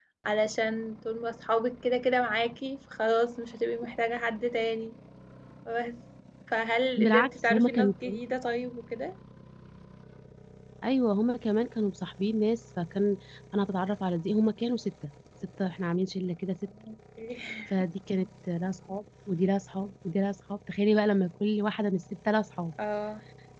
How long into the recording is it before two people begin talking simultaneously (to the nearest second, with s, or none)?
7 s